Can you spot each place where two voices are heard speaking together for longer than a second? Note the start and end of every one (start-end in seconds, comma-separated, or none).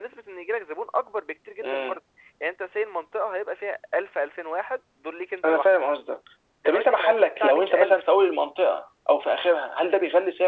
6.7-8.0